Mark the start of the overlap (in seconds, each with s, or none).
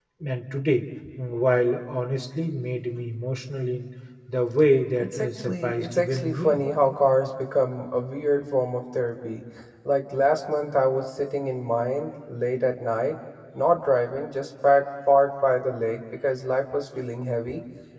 5.0 s